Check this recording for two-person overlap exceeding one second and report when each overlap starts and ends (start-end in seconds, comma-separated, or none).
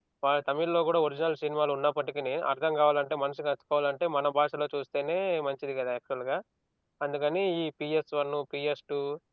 none